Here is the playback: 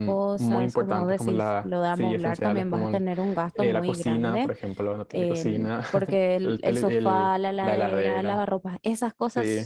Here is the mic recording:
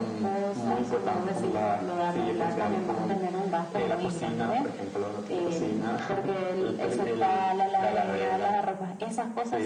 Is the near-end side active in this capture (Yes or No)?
No